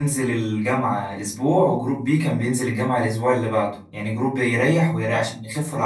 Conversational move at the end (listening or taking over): listening